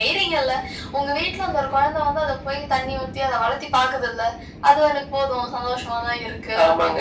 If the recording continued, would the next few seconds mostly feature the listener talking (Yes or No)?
Yes